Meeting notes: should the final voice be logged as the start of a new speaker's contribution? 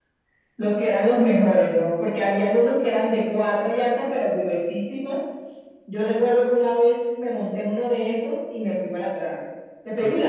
No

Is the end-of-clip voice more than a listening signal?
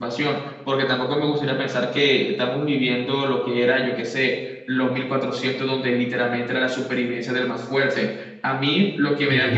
No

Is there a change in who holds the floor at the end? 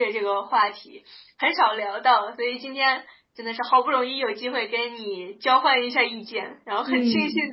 No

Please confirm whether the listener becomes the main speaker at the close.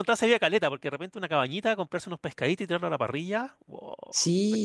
Yes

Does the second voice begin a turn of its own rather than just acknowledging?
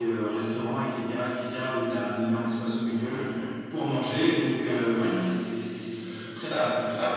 Yes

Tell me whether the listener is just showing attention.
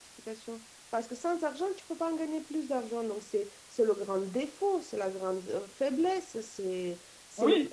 No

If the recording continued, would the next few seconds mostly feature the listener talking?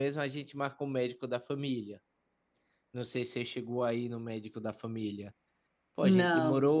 No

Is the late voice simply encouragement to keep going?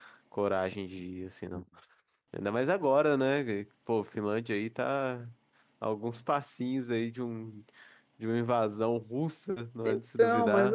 No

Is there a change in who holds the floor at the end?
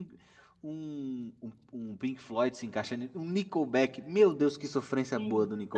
Yes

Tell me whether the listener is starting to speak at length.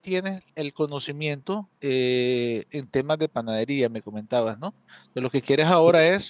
No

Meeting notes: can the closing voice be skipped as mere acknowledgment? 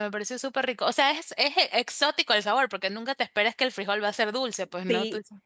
No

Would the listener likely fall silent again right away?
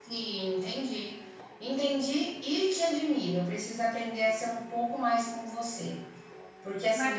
Yes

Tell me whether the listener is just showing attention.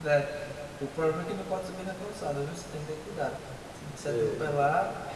Yes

